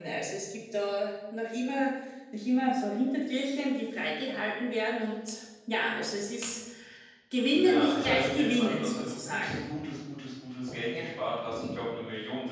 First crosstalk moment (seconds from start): 7.5 s

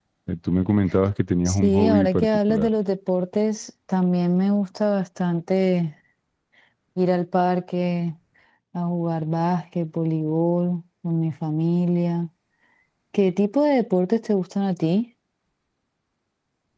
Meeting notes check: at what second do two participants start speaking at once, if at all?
1.4 s

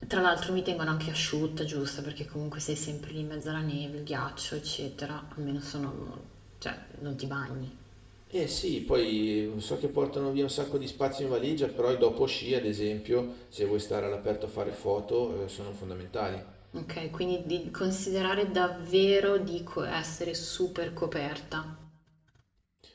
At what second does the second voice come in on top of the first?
none

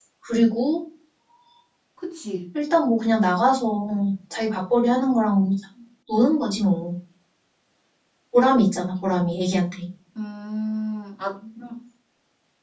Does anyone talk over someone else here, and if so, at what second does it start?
none

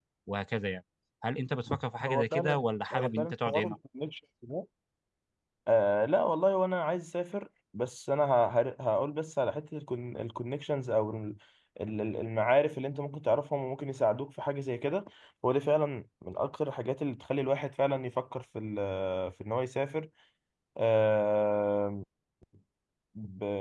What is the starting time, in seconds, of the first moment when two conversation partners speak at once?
2.0 s

